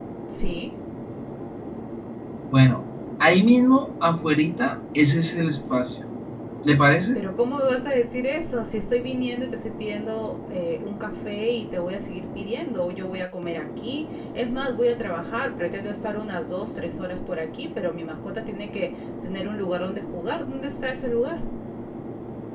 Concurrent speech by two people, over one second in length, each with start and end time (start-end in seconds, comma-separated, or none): none